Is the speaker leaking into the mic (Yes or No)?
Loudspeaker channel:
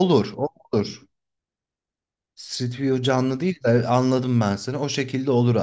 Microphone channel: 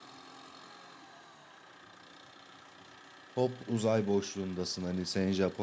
No